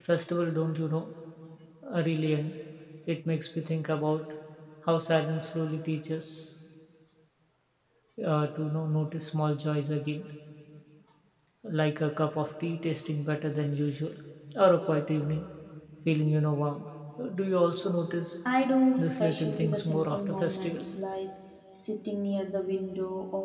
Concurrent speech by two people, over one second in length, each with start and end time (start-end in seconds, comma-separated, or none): 19.0-20.8